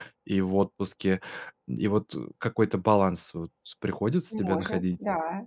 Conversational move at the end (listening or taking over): taking over